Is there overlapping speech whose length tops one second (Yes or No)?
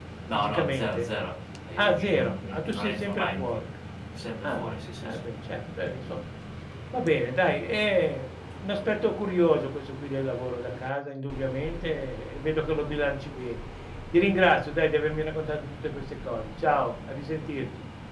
Yes